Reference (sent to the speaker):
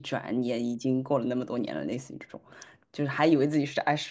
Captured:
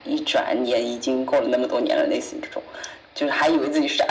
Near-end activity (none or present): none